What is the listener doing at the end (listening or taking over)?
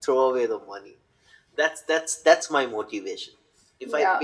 taking over